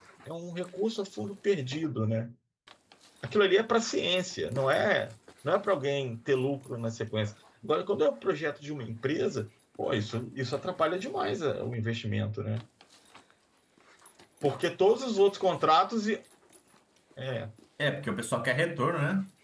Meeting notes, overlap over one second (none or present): none